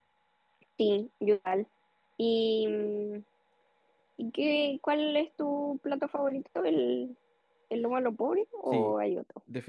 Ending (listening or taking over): taking over